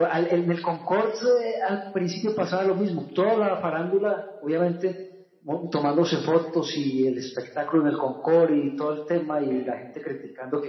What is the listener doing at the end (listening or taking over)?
listening